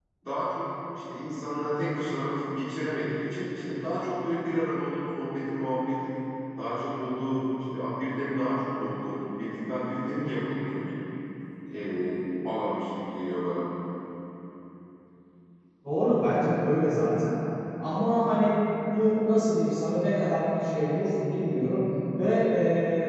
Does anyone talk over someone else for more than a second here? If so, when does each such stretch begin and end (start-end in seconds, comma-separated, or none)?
none